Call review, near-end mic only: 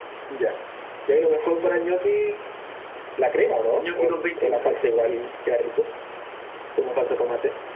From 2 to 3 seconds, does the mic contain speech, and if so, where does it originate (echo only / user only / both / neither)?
echo only